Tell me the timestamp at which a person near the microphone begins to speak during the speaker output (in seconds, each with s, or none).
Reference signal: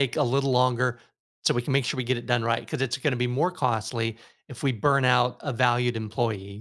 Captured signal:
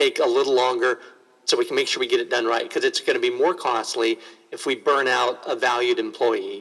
none